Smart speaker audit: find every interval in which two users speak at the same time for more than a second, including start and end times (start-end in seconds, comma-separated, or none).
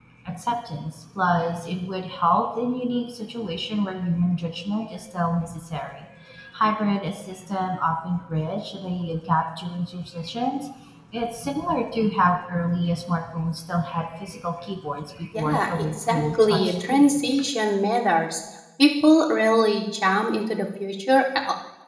15.3-17.2